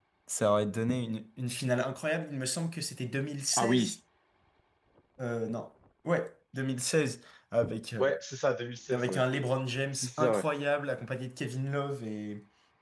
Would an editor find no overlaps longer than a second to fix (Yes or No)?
Yes